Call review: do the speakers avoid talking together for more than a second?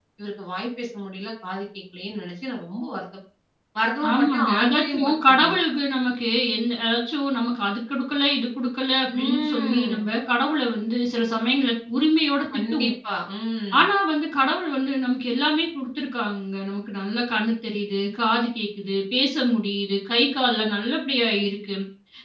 No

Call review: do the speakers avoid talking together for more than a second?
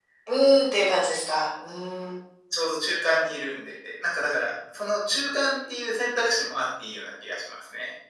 Yes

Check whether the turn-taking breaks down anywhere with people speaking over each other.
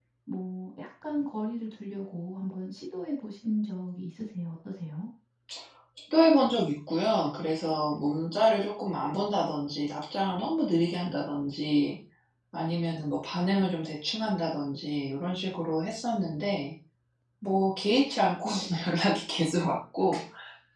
No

